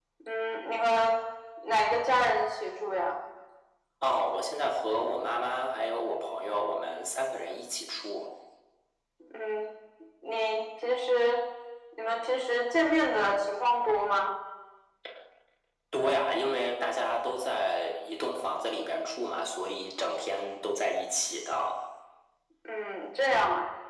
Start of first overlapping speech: none

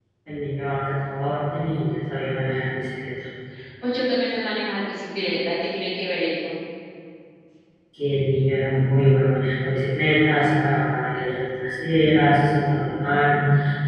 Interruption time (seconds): none

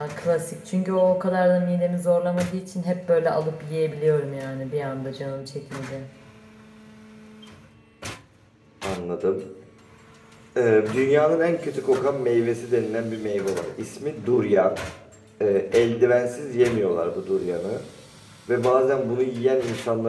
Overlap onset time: none

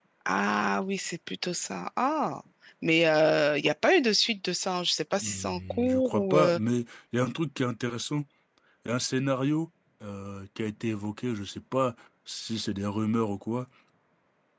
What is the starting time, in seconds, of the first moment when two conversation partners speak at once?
5.2 s

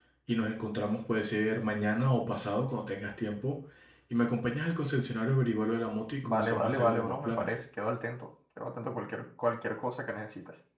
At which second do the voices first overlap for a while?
6.2 s

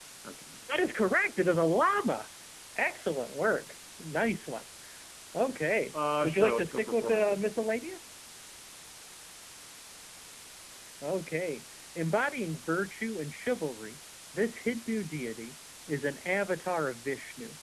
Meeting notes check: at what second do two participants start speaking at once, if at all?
6.2 s

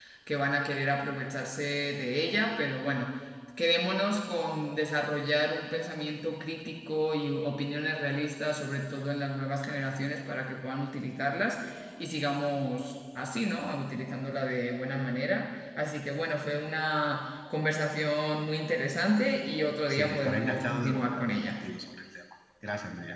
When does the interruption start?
19.9 s

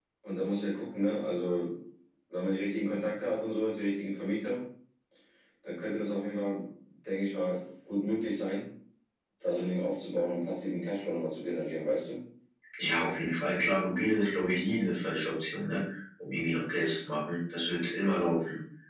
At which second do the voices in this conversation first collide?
none

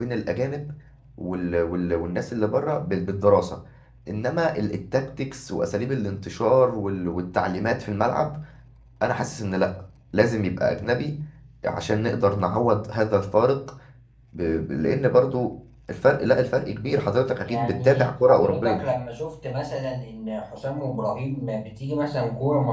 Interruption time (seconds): 17.5 s

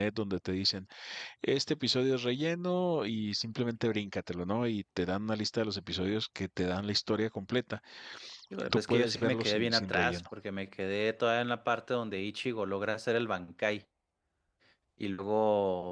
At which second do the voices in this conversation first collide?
8.7 s

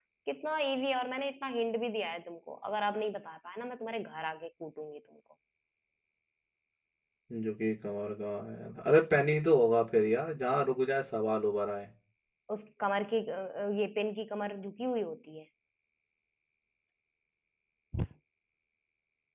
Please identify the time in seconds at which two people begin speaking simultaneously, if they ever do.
none

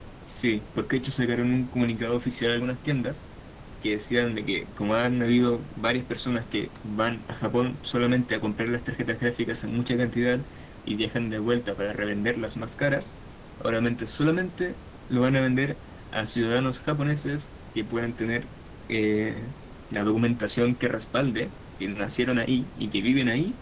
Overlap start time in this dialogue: none

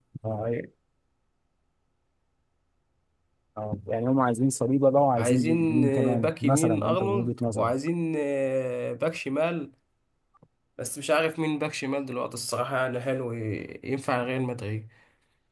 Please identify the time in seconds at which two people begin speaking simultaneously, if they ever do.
5.2 s

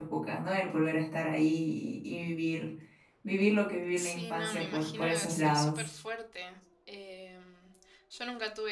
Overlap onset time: 4.0 s

